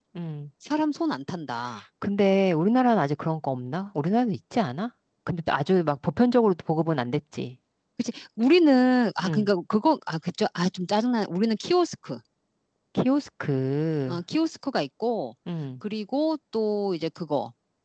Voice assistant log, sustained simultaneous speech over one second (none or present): none